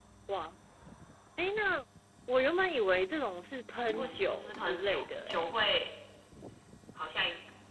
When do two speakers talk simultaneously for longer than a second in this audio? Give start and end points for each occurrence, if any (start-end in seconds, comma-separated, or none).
4.0-5.5